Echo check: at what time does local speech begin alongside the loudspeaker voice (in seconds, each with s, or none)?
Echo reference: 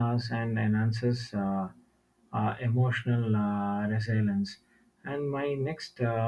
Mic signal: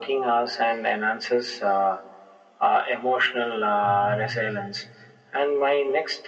3.8 s